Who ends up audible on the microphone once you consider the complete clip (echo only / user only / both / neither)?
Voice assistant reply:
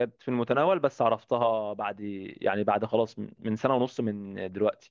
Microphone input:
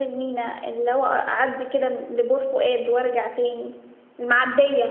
user only